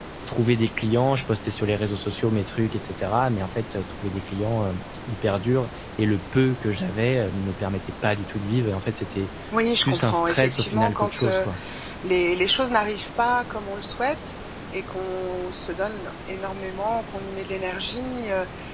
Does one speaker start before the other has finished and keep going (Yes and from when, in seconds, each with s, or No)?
Yes, from 9.8 s